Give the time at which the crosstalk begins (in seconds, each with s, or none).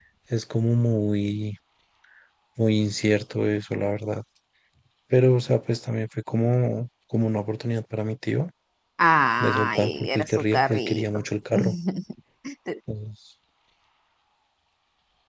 9.4 s